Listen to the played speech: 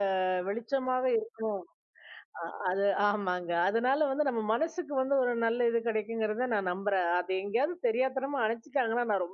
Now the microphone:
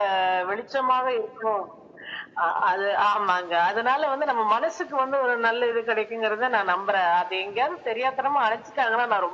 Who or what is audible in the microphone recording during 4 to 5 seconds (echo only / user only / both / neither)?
echo only